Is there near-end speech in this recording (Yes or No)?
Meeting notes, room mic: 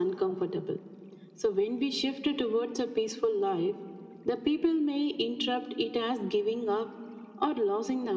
No